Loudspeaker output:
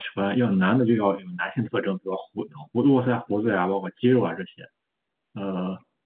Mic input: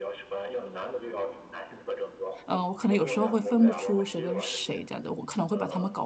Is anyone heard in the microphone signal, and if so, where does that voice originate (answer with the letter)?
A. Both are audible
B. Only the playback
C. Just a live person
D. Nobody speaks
A